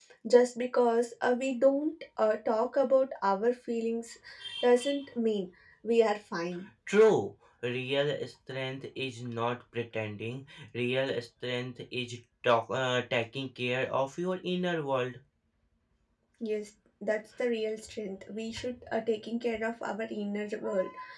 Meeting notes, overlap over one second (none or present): none